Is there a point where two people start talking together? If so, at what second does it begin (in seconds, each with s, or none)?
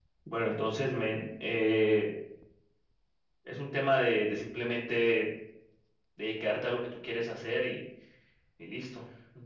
none